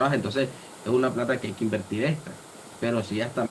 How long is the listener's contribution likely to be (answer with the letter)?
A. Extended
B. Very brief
B